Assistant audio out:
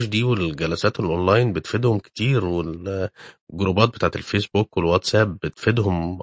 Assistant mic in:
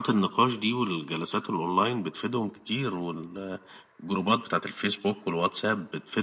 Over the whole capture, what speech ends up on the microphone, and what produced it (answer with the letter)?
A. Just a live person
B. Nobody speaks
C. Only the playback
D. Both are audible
C